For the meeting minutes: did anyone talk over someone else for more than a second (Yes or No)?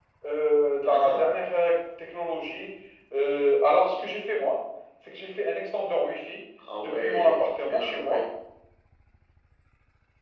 Yes